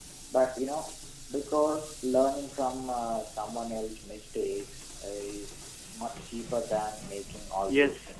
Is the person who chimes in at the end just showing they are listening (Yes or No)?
No